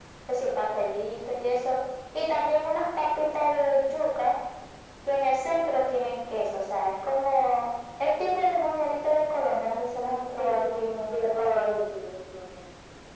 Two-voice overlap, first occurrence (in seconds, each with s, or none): 10.4 s